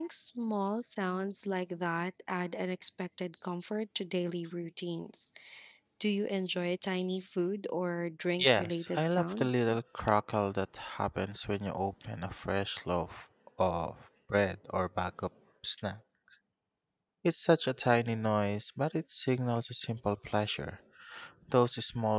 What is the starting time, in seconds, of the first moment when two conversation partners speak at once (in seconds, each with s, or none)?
8.4 s